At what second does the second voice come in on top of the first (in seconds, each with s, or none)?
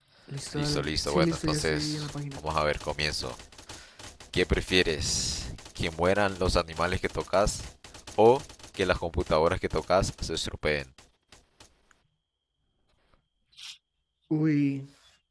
0.5 s